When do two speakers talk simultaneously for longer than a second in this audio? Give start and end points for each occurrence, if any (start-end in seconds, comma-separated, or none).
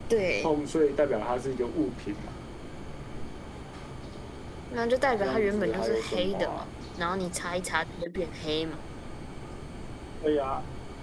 5.2-6.6